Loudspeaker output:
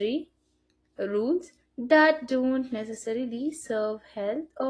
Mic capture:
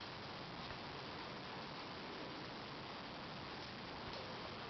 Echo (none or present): none